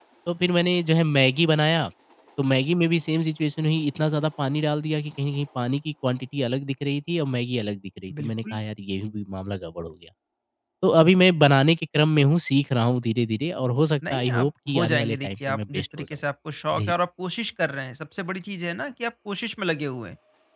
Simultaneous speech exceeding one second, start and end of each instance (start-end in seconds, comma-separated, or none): 14.1-16.1